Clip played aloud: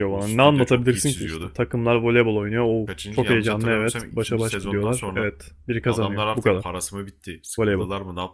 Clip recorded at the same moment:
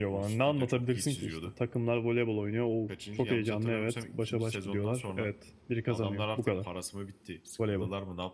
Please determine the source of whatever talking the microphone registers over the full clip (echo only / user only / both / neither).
echo only